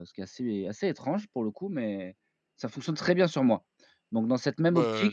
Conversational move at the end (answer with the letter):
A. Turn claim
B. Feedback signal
B